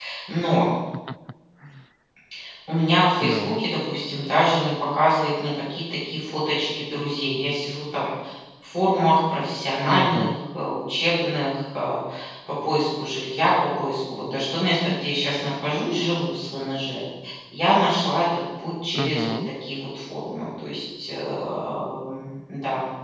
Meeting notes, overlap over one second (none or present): none